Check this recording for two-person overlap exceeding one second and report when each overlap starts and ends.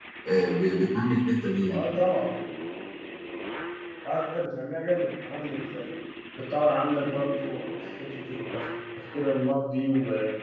none

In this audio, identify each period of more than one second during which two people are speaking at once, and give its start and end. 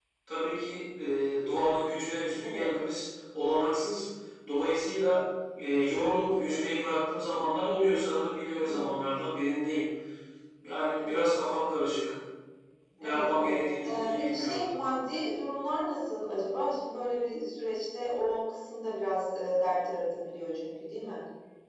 13.0-14.6

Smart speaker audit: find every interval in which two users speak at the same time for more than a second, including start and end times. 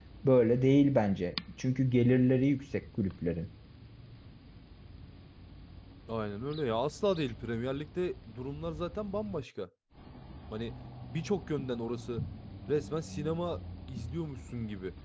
none

